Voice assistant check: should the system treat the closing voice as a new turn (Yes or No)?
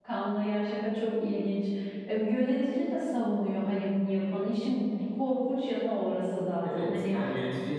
Yes